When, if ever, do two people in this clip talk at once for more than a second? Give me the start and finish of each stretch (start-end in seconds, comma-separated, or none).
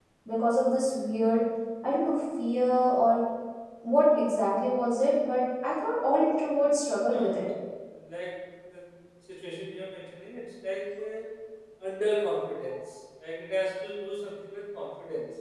none